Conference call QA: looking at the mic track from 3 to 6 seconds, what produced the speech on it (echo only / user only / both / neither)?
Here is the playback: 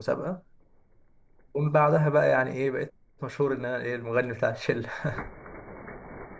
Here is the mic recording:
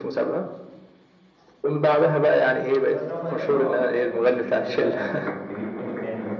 both